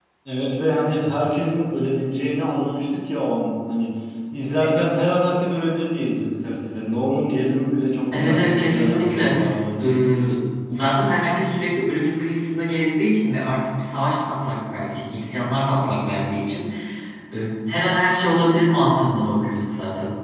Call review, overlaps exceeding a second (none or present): present